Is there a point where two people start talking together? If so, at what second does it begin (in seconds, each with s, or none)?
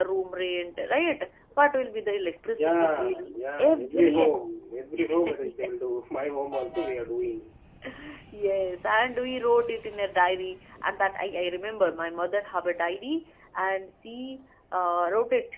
2.5 s